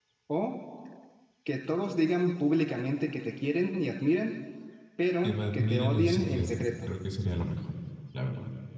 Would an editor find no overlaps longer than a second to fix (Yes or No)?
No